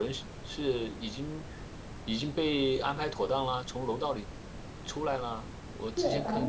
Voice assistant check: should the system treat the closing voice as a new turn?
Yes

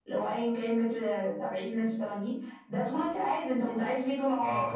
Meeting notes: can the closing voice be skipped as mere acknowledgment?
Yes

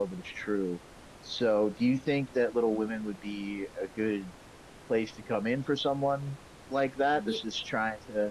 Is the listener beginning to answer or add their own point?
No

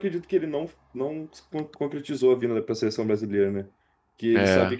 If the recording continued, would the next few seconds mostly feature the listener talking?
No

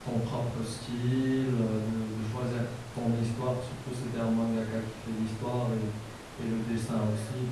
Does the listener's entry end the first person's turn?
No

